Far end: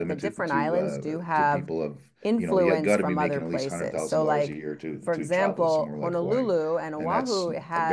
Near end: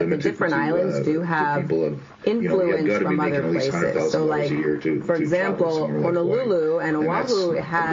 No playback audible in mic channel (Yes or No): No